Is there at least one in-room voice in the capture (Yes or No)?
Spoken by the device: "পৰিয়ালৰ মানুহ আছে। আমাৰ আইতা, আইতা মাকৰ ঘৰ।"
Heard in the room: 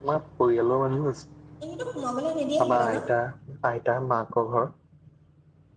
Yes